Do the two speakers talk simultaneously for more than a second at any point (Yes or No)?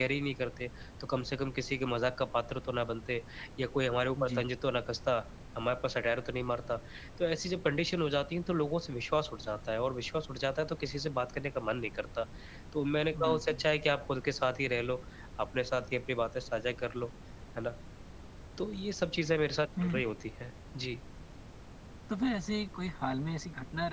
No